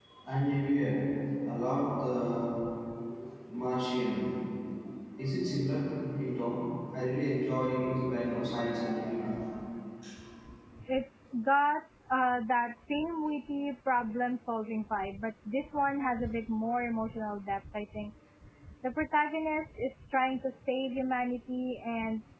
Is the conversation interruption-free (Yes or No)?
Yes